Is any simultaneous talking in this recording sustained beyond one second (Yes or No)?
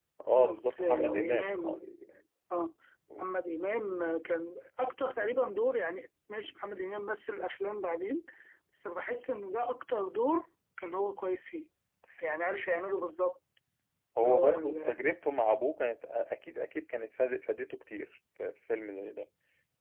Yes